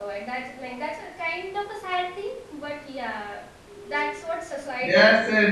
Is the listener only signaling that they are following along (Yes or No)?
No